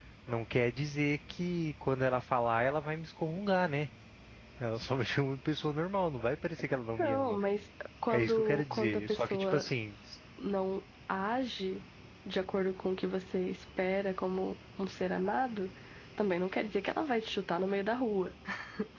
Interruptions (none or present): present